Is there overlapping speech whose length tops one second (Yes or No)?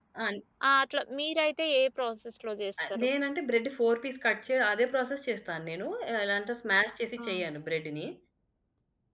No